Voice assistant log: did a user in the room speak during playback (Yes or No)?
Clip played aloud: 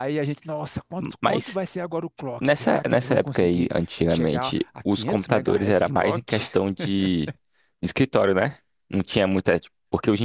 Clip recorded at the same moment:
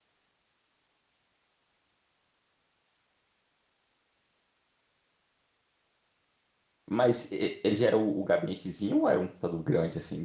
Yes